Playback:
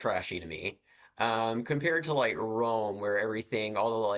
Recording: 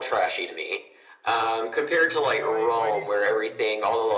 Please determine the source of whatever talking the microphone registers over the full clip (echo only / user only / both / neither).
both